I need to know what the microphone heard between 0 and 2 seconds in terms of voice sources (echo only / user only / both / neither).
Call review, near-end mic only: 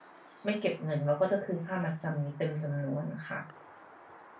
user only